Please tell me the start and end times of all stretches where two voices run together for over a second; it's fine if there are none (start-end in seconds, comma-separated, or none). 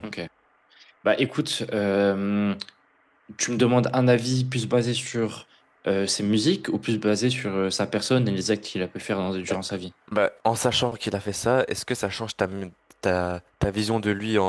none